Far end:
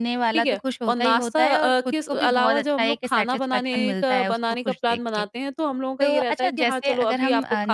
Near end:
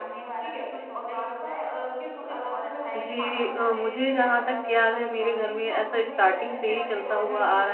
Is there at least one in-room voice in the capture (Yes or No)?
Yes